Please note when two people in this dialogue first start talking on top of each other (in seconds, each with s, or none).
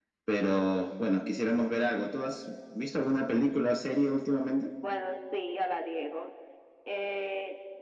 none